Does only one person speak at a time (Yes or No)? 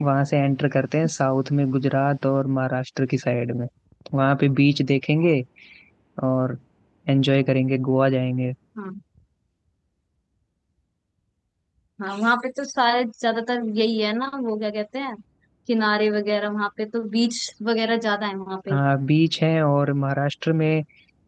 Yes